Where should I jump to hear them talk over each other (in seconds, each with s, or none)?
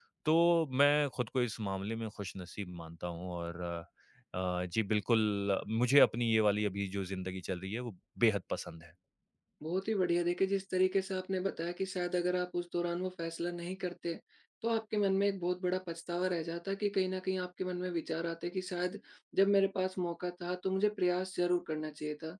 none